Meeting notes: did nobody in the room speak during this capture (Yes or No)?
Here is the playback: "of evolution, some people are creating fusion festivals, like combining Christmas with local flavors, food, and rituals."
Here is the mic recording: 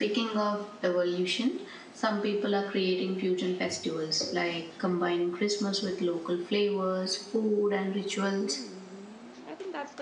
No